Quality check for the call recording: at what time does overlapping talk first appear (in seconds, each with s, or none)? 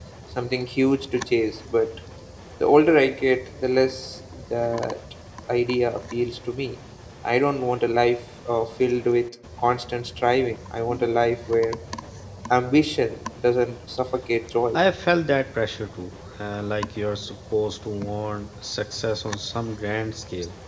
none